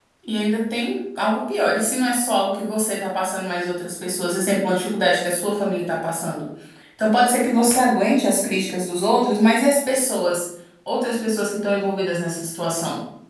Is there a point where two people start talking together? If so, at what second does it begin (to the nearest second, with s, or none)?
none